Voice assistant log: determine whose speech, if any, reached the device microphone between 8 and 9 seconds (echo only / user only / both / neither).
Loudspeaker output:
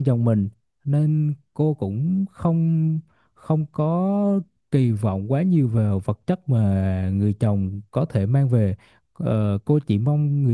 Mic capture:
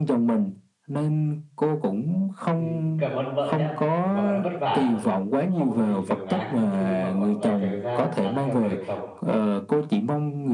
both